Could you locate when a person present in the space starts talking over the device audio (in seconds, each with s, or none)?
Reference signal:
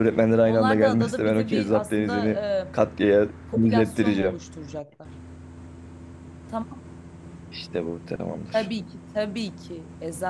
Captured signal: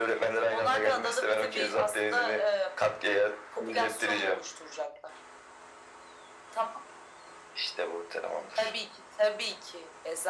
none